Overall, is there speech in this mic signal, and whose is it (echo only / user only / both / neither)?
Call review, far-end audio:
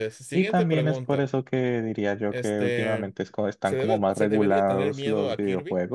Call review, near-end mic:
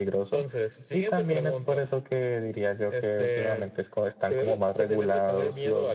echo only